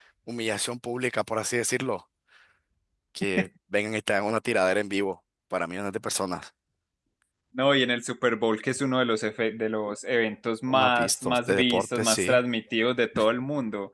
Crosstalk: present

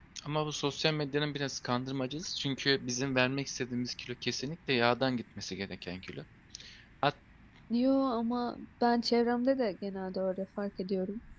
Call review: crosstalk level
none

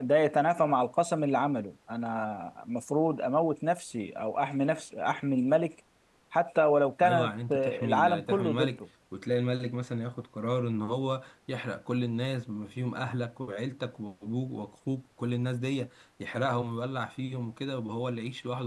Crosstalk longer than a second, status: present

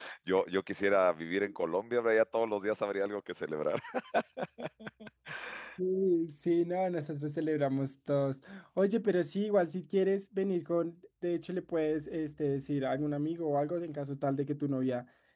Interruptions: none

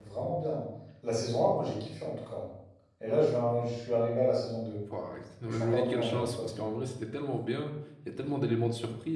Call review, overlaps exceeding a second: present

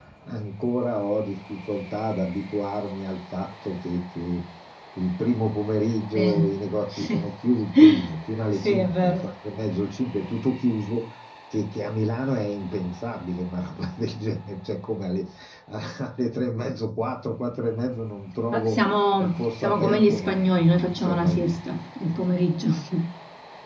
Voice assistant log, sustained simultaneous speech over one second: present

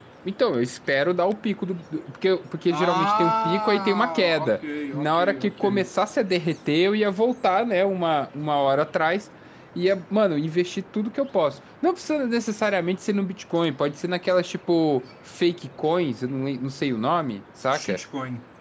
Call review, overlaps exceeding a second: present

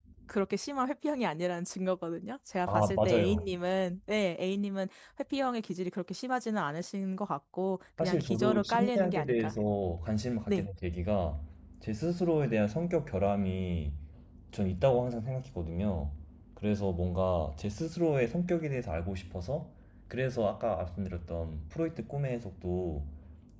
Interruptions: present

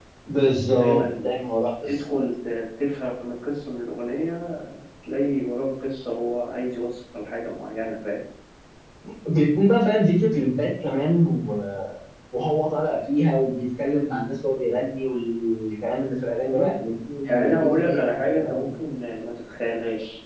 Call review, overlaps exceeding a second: present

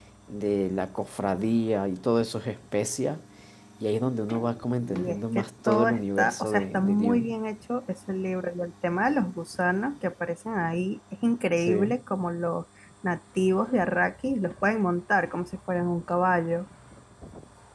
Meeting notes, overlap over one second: present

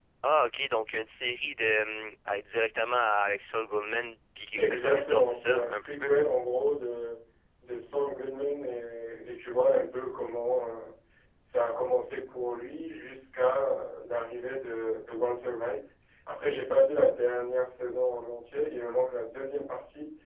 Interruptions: present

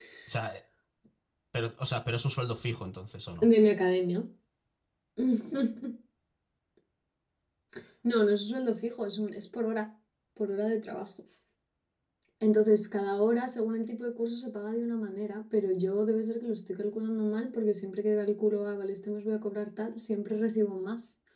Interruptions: none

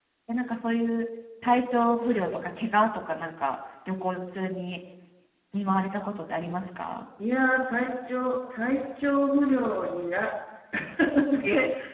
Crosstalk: none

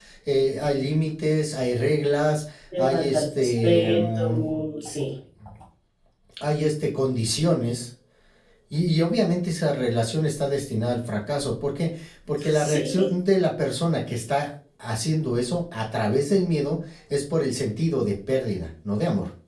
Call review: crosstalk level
present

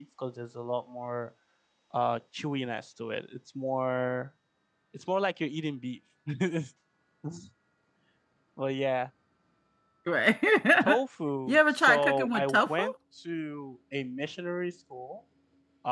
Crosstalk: present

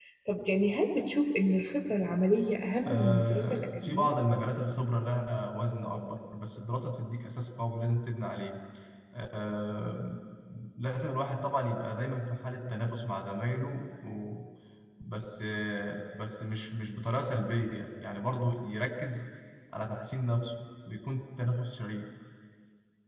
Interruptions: present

